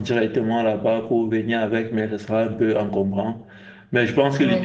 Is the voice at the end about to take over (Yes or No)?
No